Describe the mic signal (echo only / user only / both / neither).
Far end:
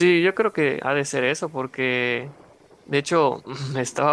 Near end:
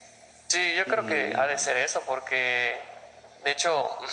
both